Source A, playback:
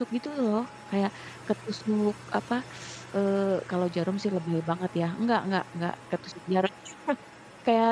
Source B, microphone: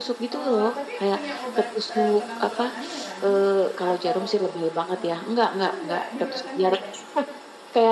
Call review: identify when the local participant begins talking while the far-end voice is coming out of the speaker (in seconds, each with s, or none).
0.3 s